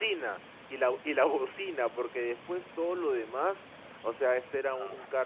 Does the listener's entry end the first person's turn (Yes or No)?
No